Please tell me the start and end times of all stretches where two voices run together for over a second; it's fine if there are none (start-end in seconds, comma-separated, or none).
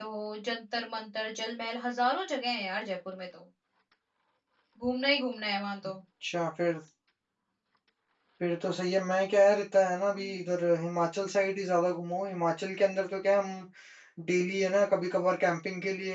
none